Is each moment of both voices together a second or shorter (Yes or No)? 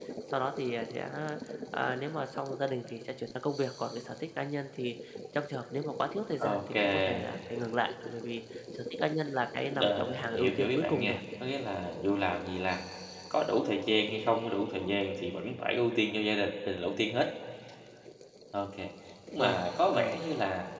No